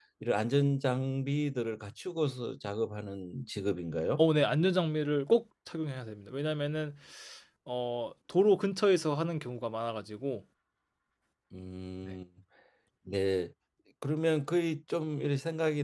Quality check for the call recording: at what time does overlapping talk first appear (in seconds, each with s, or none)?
none